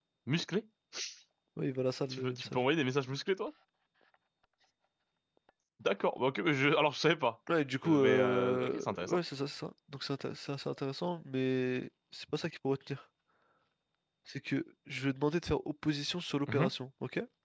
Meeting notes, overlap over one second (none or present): present